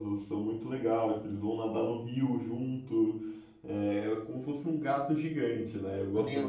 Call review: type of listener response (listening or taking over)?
taking over